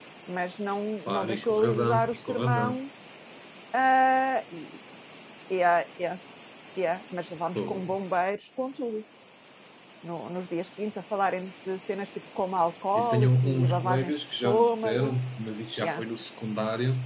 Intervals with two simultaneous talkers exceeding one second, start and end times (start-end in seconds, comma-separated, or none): 1.1-2.8, 13.0-15.1